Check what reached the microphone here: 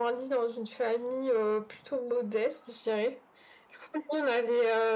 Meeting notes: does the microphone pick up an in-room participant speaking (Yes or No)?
No